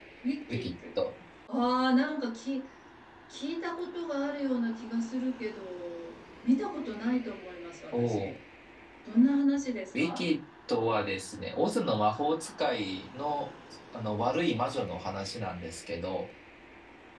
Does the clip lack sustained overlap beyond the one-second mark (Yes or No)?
Yes